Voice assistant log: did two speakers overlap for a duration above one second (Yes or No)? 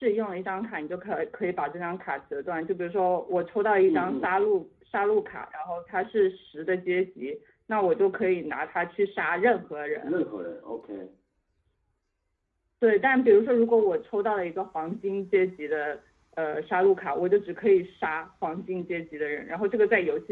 No